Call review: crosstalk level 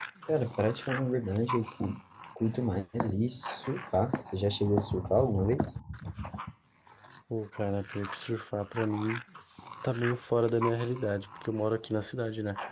none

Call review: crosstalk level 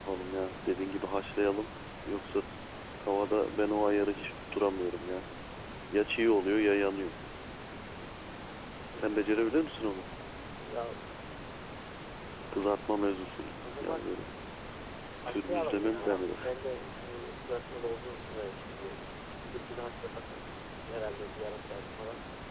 present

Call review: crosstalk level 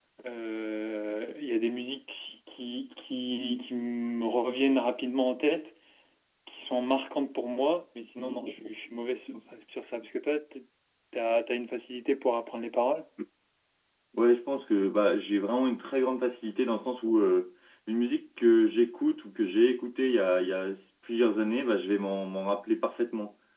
none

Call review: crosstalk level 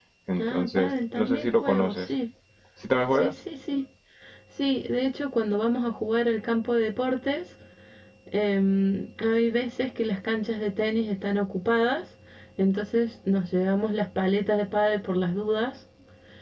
present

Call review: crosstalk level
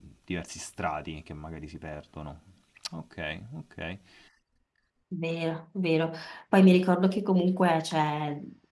none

